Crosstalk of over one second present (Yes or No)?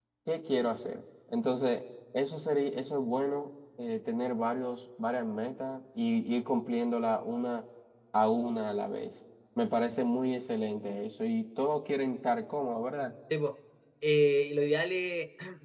No